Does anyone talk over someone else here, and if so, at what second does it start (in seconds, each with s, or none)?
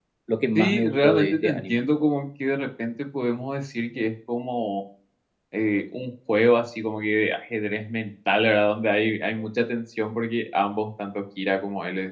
0.6 s